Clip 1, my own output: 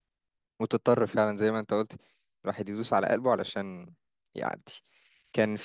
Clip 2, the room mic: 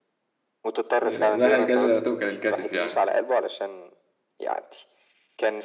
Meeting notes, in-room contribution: present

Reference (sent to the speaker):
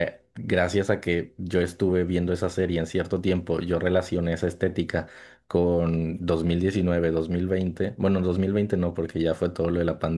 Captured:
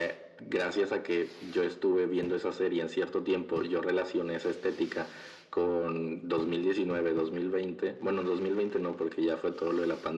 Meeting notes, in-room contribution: none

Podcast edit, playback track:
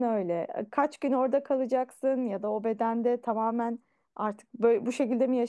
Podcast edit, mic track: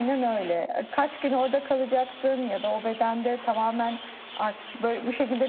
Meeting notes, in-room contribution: none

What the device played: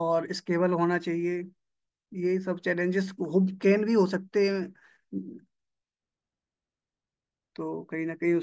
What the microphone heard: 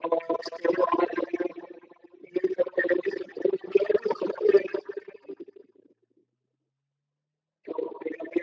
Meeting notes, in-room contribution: none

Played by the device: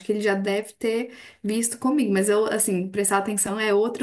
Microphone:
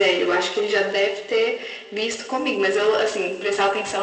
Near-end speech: none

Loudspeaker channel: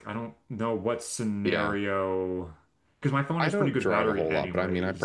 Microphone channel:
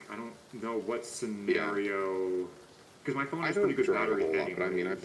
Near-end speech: none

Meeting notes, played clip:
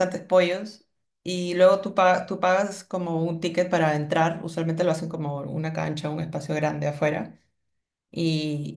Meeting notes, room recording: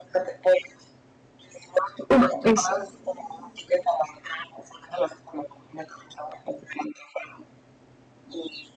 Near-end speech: present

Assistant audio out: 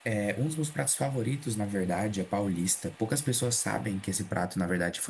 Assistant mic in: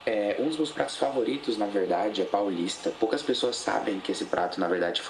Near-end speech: none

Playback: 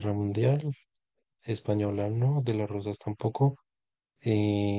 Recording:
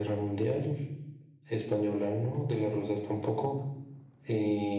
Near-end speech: none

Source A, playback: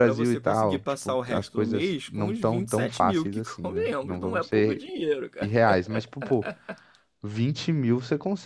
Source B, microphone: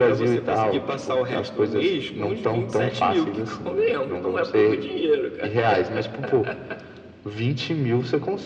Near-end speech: none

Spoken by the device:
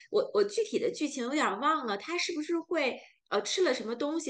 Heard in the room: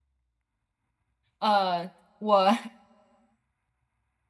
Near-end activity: present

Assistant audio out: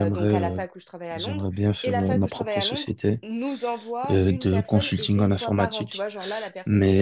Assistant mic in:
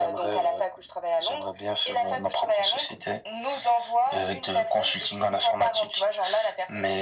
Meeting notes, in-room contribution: none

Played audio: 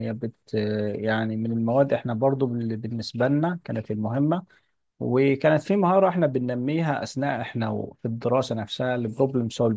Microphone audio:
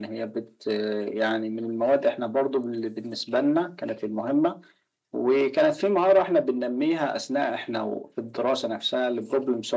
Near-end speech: none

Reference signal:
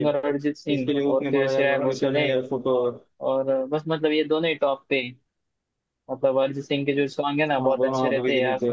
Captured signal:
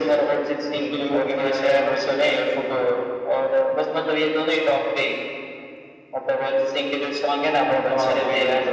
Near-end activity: none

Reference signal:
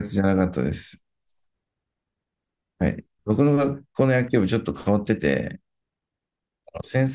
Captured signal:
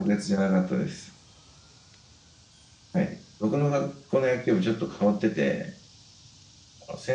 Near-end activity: none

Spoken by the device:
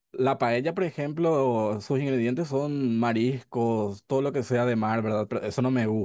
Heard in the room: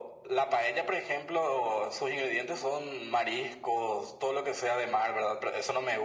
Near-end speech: none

